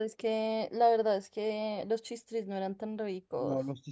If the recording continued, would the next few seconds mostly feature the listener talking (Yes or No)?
Yes